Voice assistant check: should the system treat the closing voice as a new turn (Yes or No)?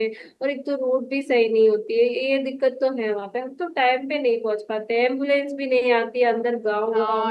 Yes